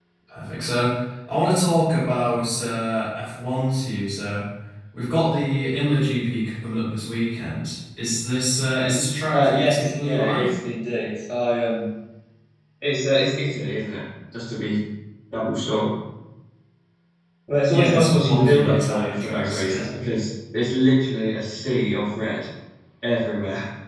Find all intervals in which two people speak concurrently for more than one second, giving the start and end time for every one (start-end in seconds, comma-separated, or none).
9.3-10.5, 17.7-19.9